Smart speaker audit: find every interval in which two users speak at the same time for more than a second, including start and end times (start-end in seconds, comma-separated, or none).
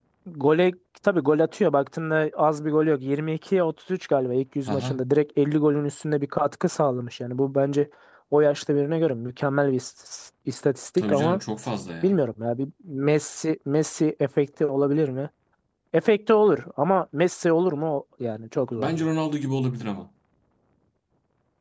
none